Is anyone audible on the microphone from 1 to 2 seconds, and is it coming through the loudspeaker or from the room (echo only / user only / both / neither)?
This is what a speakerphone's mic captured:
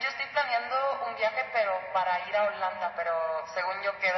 echo only